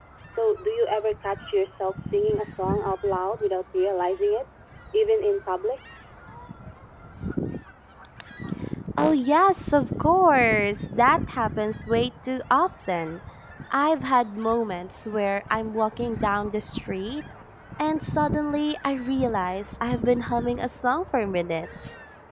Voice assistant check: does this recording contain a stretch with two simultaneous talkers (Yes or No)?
No